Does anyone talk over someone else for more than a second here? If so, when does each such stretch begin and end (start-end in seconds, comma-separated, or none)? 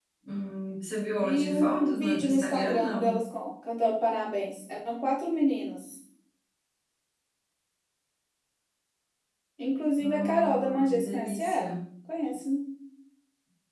1.2-3.2, 10.0-11.8